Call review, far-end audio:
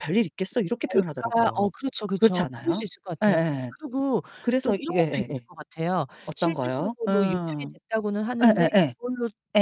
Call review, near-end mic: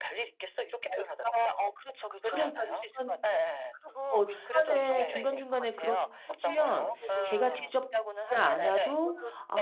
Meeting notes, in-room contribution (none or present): present